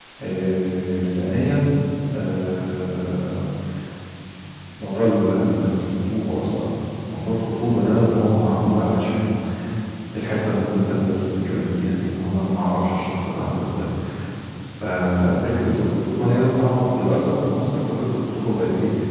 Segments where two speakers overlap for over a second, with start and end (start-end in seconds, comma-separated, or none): none